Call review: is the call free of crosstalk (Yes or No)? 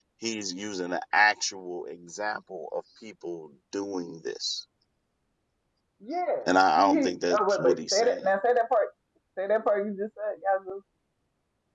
No